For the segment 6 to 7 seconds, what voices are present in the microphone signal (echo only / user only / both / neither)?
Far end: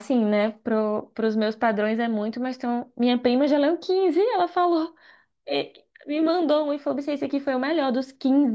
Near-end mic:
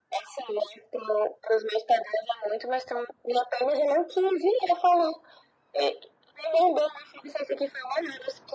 echo only